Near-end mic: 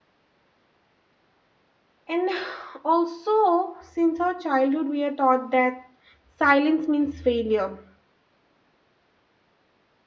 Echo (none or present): none